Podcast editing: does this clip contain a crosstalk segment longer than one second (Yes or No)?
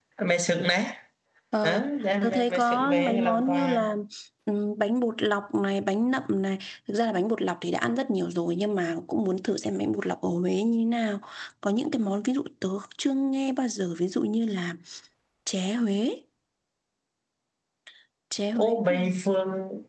Yes